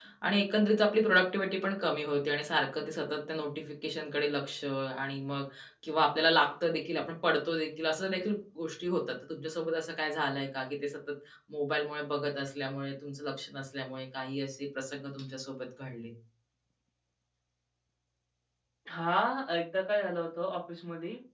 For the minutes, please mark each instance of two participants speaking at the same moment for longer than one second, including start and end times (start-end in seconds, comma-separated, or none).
none